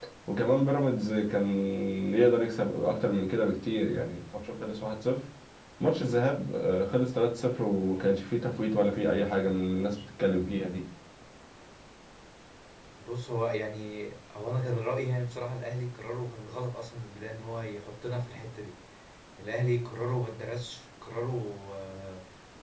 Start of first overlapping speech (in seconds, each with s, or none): none